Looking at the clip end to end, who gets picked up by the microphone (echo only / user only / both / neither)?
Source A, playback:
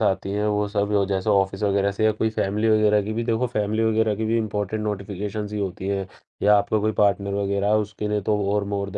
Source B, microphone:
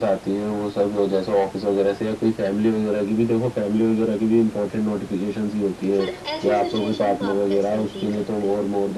both